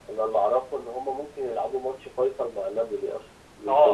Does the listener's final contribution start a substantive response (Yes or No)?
Yes